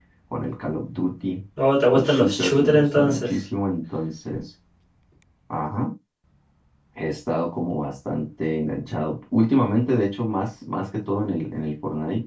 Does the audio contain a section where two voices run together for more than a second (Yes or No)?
Yes